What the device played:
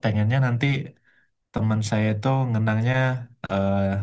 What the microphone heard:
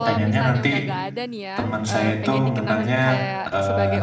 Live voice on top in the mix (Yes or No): No